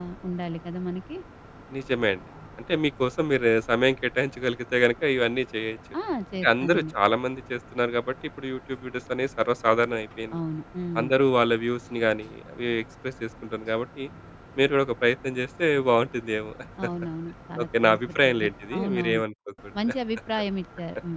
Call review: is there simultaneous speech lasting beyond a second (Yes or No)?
Yes